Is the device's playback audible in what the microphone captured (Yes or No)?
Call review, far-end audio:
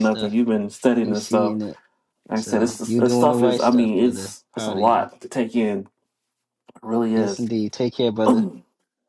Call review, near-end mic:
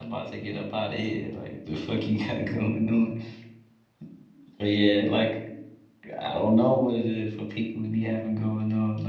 No